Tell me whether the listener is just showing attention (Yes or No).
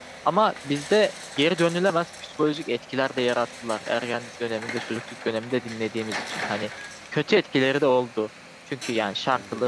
Yes